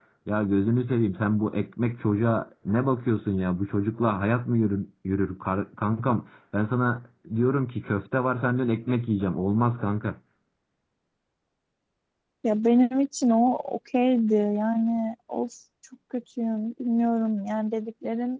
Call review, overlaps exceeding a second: none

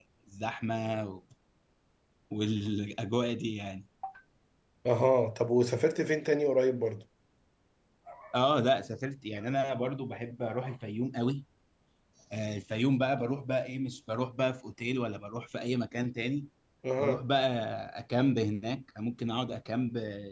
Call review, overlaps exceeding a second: none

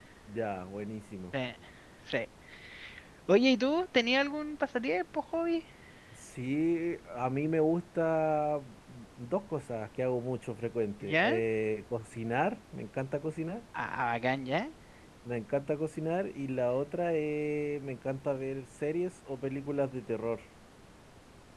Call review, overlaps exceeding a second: none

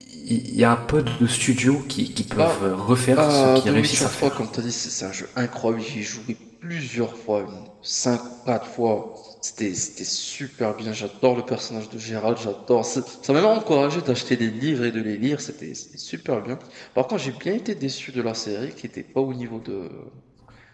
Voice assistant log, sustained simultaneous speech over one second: present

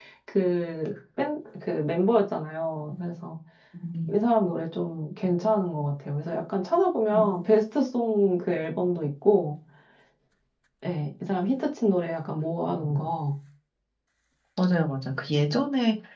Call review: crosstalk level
none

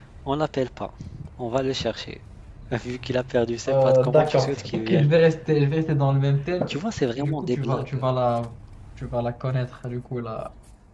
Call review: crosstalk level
present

